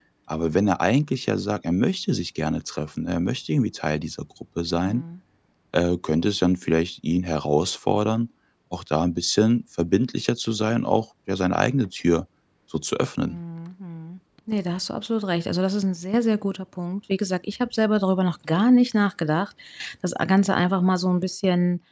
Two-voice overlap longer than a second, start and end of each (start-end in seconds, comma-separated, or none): none